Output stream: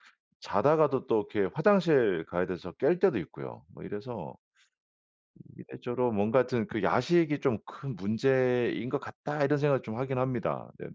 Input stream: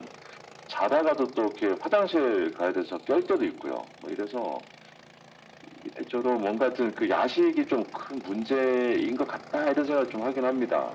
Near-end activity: none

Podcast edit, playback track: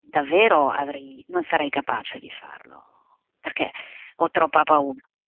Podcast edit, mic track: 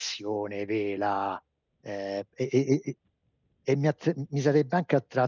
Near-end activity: present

